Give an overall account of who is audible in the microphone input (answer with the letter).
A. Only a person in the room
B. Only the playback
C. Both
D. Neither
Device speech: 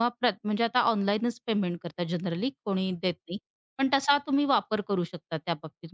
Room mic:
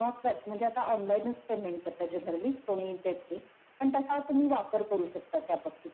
B